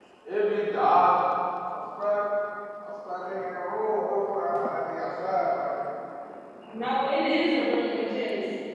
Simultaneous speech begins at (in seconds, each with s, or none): none